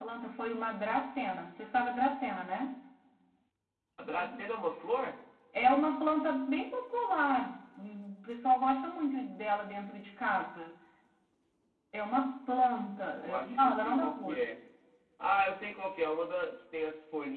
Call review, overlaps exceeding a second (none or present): present